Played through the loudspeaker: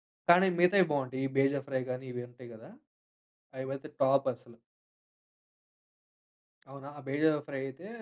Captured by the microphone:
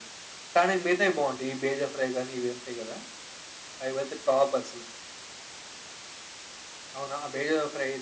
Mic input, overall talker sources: echo only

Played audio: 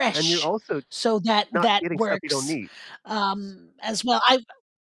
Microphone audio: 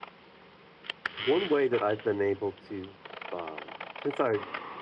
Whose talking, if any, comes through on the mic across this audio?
user only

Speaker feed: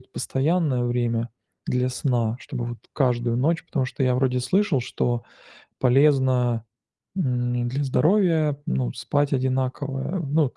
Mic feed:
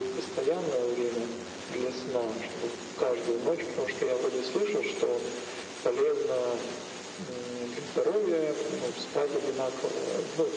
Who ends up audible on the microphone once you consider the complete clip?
echo only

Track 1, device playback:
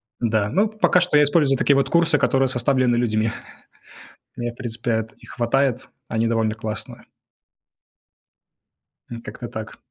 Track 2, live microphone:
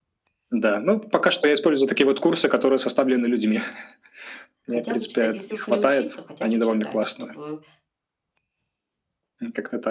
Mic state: both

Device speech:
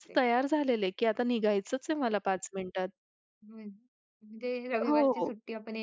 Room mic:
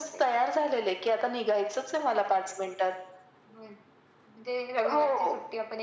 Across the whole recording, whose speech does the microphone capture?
echo only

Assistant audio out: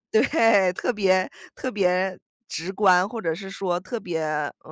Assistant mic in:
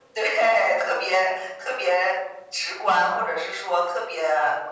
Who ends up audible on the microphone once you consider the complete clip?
echo only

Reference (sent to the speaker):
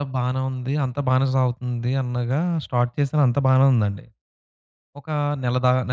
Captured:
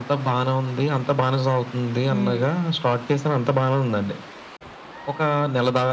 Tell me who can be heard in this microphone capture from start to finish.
both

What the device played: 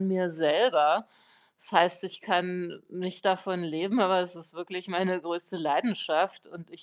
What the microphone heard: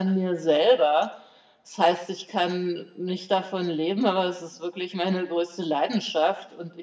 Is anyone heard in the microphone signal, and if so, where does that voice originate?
echo only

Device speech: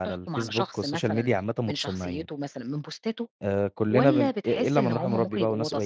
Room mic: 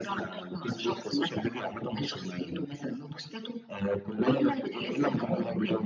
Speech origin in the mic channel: both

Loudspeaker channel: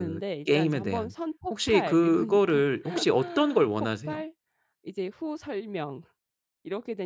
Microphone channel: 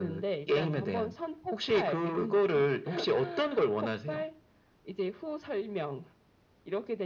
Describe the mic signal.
echo only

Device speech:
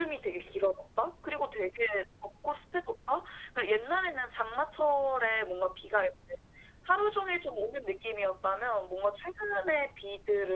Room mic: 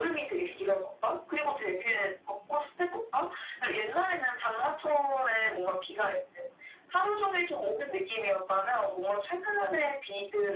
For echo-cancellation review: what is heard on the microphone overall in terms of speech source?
echo only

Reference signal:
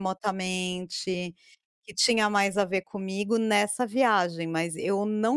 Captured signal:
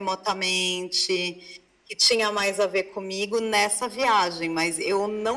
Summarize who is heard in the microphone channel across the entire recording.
echo only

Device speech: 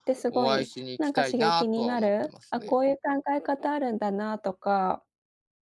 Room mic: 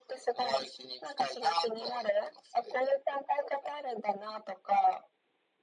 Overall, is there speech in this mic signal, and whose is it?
echo only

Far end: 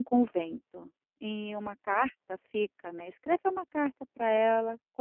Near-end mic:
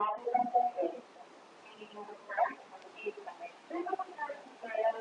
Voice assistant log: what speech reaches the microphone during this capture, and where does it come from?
echo only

